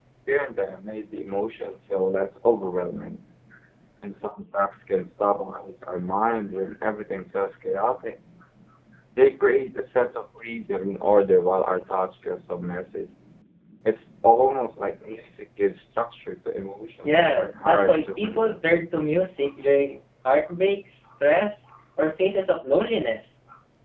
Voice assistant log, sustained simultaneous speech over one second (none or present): present